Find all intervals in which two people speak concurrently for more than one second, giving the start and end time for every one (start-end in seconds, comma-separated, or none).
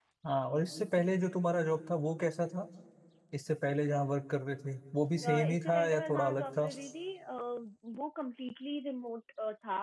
5.3-6.7